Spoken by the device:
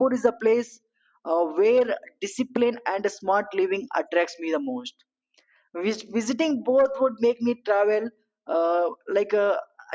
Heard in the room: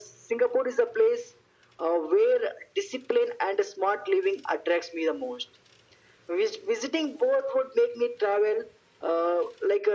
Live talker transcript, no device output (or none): none